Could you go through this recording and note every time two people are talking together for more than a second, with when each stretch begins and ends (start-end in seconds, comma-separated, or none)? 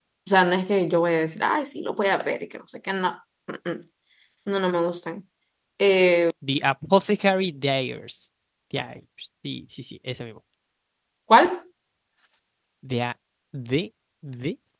none